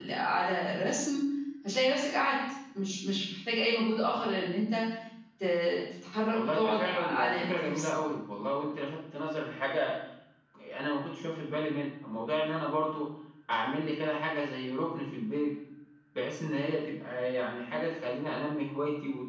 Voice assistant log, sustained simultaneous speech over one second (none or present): present